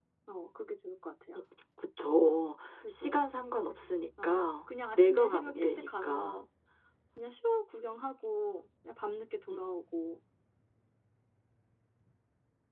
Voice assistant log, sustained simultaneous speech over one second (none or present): present